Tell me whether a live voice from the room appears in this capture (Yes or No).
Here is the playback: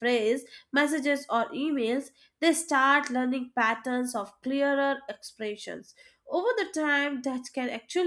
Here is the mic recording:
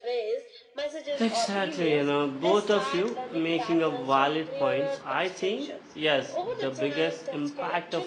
Yes